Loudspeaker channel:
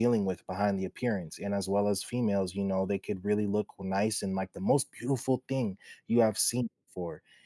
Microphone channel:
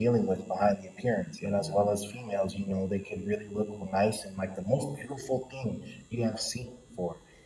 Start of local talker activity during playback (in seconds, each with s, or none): 1.4 s